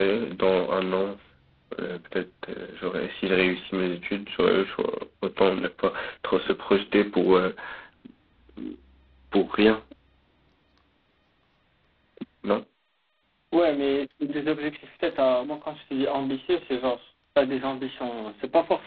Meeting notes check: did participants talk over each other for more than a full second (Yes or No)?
No